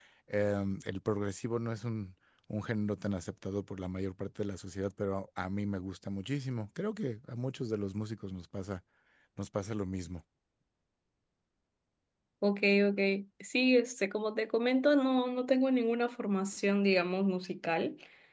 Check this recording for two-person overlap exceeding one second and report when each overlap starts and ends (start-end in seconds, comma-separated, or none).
none